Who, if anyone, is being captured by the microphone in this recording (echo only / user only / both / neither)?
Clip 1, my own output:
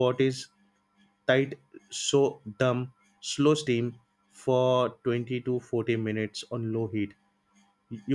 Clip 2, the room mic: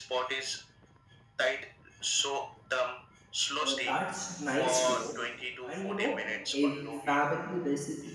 both